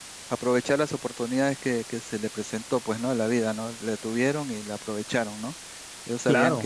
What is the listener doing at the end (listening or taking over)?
listening